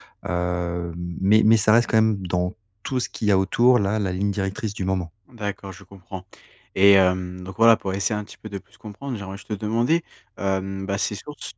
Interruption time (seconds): none

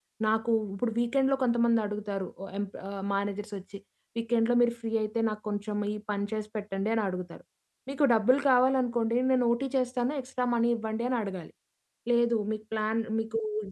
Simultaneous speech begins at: none

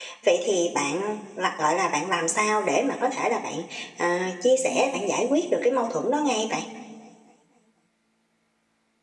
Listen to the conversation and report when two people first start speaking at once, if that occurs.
none

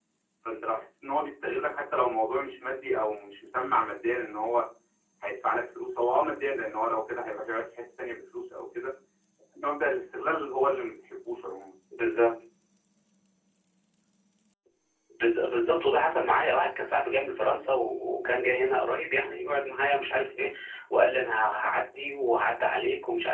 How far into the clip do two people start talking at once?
none

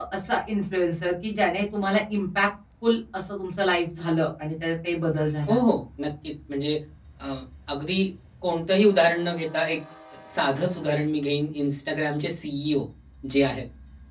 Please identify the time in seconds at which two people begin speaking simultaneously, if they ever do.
none

